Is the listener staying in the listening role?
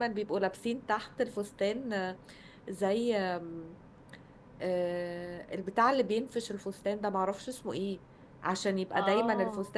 Yes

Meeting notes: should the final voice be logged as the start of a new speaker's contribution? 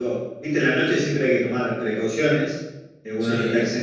No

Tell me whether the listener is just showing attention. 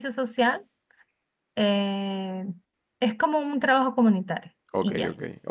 No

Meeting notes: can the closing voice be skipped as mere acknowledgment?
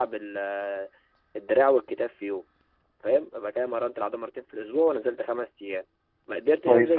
Yes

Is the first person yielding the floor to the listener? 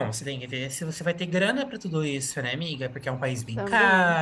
No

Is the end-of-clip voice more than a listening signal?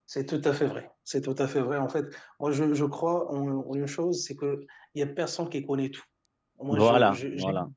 No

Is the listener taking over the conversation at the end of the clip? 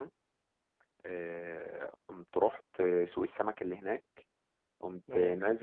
No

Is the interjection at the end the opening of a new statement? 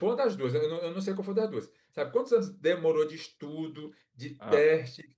No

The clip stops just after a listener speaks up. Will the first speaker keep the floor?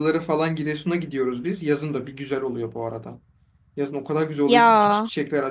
Yes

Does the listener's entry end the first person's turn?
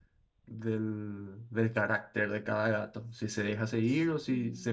No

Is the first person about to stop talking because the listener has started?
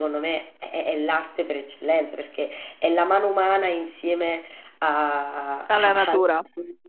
No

